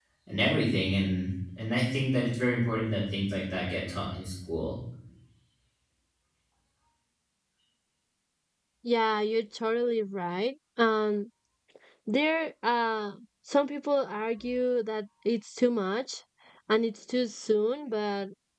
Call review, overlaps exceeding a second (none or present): none